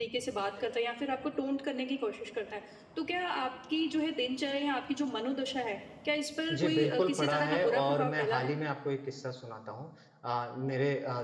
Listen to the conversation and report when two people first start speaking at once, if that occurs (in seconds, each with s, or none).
6.5 s